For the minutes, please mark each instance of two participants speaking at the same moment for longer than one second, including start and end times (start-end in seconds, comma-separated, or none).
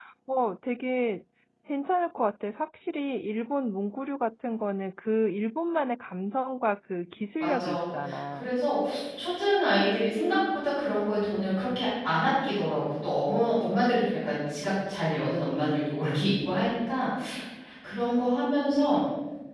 none